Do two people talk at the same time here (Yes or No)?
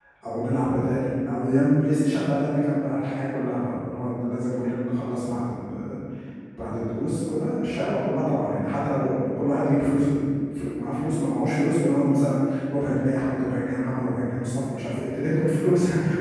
No